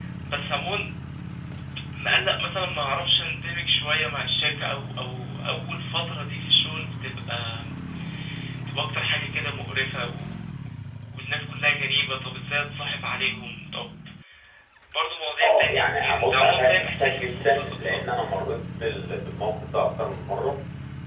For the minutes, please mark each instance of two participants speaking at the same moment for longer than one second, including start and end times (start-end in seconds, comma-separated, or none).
15.4-18.0